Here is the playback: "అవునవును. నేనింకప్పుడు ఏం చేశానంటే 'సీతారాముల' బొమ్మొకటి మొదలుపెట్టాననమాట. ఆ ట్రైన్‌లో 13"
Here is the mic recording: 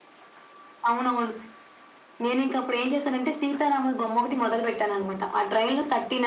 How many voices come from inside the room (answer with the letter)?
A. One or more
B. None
B